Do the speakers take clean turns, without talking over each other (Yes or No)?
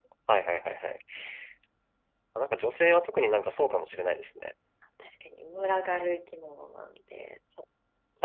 Yes